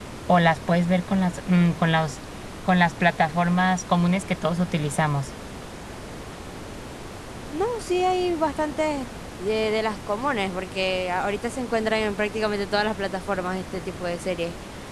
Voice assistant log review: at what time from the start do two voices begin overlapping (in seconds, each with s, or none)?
none